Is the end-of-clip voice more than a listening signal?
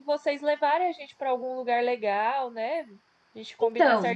No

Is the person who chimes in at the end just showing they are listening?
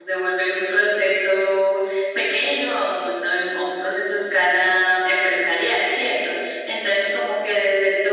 Yes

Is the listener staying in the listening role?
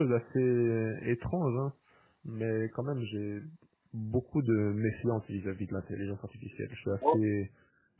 Yes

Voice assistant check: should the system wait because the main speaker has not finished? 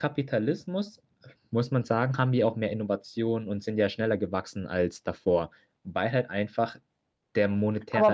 No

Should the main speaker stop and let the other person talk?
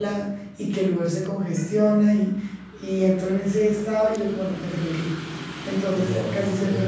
Yes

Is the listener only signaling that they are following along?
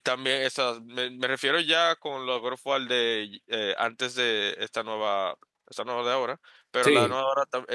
Yes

